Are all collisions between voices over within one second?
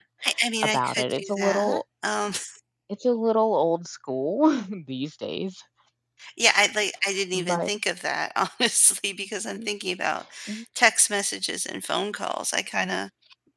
No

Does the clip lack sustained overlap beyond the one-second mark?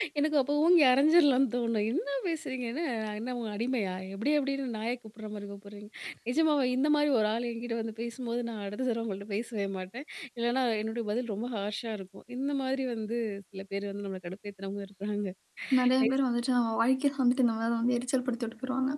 Yes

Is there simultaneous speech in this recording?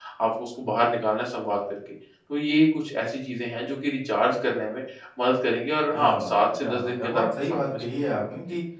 Yes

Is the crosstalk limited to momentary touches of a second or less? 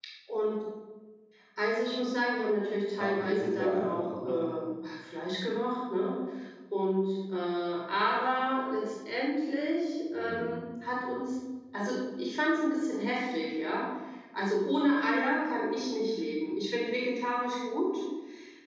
No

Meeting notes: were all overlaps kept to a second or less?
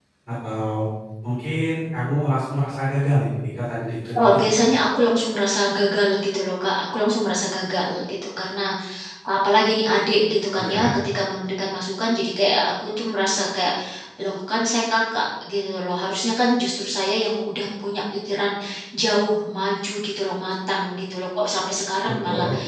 Yes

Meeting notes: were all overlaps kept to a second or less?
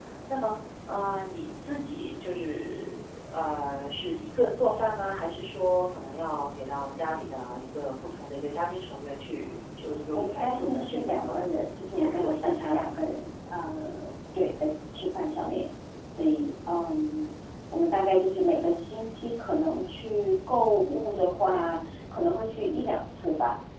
No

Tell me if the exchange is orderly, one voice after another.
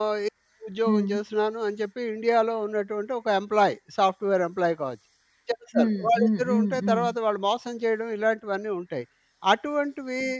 No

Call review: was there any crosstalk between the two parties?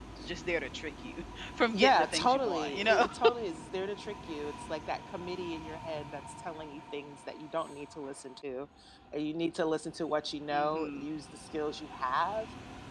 Yes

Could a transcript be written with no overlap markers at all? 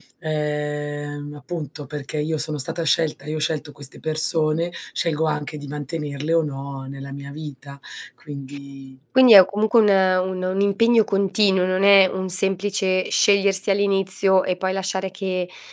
Yes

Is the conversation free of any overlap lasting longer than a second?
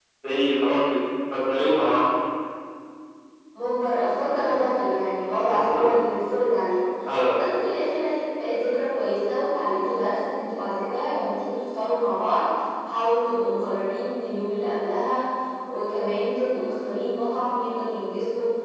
Yes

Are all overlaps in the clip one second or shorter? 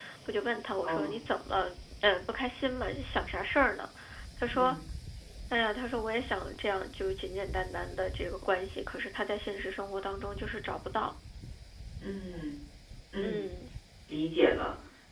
Yes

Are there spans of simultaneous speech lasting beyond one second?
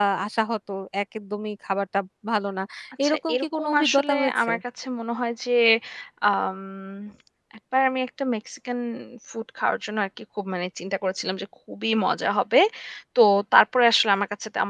Yes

